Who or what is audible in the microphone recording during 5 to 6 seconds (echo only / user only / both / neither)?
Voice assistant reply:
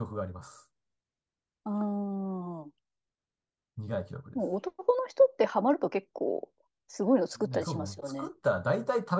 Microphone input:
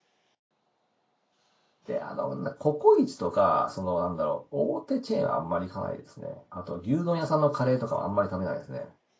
user only